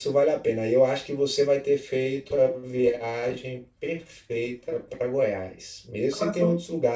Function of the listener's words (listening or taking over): listening